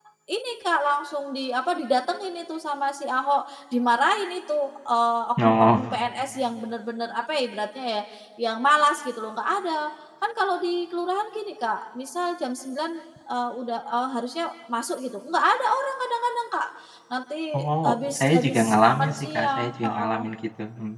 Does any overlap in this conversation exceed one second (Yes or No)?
Yes